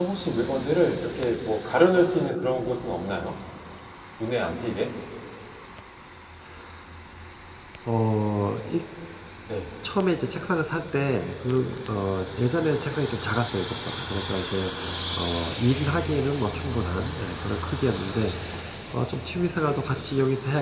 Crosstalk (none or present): none